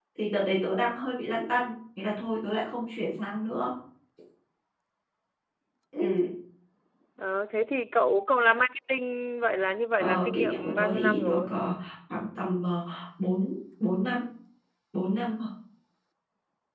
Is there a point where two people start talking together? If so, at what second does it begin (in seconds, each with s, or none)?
9.9 s